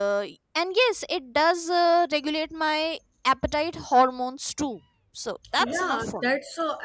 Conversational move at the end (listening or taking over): taking over